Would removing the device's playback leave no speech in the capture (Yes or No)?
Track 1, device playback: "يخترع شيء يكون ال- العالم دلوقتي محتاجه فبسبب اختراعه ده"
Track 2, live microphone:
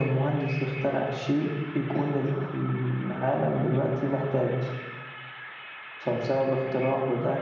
Yes